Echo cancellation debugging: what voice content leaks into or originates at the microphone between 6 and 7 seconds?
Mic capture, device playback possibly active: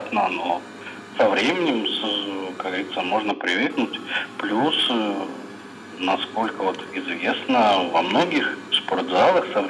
echo only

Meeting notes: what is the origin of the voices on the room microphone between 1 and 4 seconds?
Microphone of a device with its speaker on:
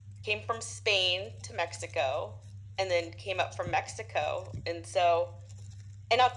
echo only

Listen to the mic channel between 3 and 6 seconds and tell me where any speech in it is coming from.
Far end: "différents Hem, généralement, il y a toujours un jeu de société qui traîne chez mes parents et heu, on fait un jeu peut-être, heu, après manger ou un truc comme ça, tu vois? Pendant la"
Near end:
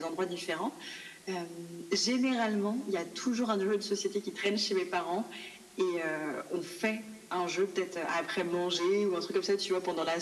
echo only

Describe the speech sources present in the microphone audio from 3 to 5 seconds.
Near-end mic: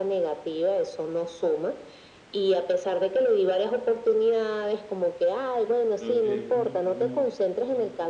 echo only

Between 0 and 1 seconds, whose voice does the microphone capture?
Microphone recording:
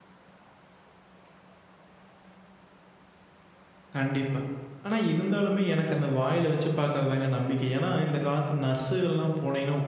neither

